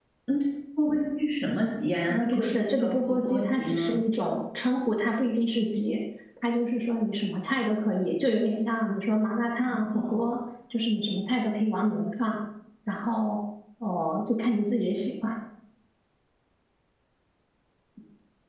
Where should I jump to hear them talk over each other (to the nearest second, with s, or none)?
2 s